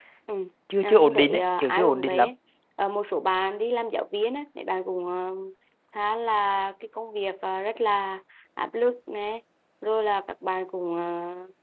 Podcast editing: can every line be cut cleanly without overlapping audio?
No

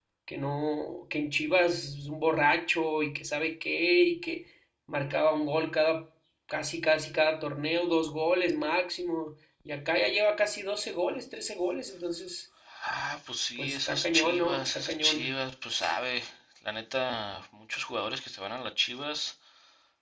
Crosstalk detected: Yes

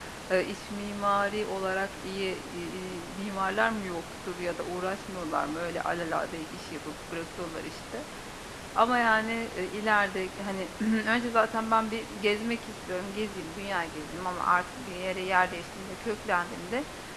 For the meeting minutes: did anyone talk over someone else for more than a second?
No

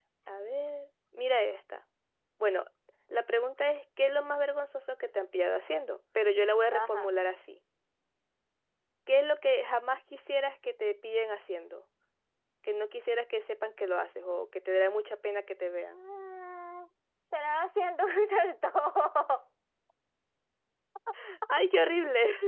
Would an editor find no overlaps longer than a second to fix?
Yes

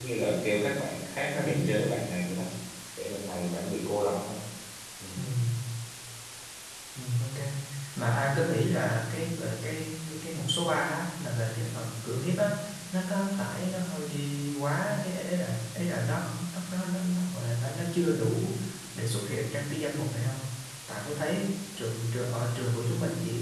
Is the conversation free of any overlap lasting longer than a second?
Yes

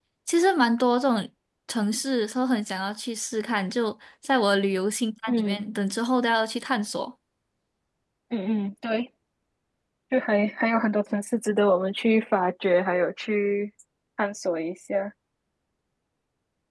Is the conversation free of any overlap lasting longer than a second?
Yes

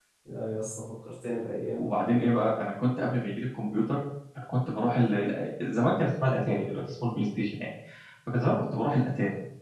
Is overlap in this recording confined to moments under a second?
Yes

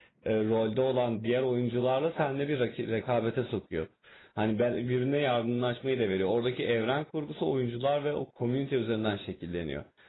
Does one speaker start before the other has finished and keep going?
No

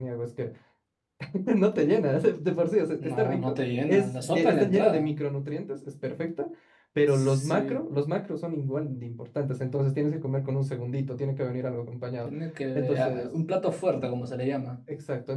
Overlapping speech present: Yes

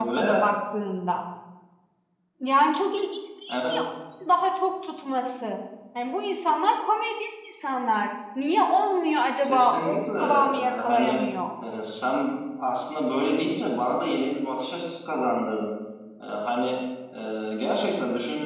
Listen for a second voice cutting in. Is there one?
Yes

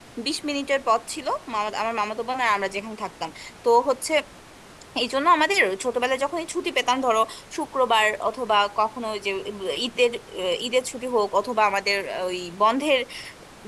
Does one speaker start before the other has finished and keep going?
No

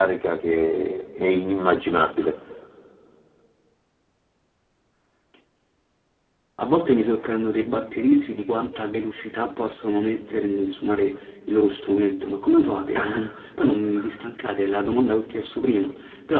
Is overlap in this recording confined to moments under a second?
Yes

